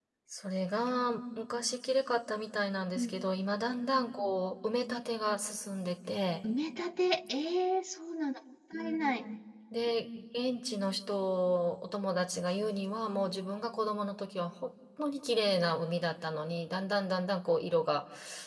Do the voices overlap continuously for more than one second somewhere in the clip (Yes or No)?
No